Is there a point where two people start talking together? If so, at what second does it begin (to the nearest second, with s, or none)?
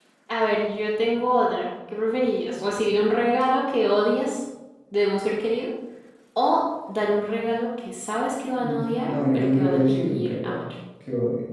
9 s